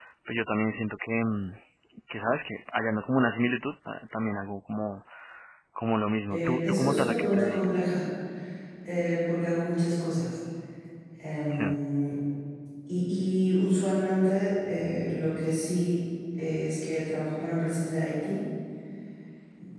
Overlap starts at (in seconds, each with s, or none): 6.3 s